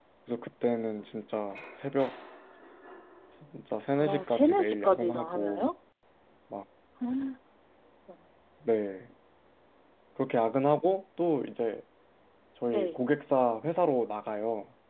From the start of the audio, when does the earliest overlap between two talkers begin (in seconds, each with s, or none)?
4.0 s